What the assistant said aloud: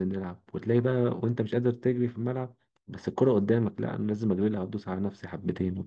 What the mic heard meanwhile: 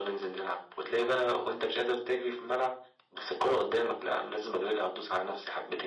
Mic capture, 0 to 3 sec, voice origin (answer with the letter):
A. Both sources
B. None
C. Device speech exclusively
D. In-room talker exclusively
C